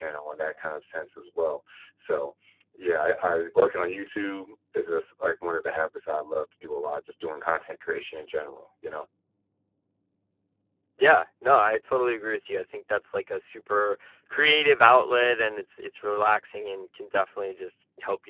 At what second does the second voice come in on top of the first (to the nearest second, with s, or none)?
none